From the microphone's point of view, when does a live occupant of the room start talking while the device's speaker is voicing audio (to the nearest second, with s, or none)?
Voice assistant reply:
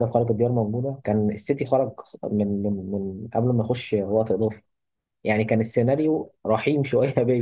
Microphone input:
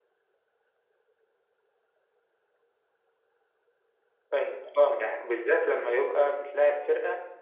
4 s